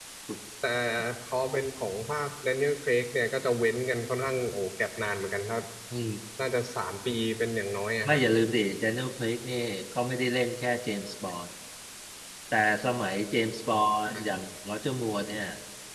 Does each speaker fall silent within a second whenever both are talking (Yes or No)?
Yes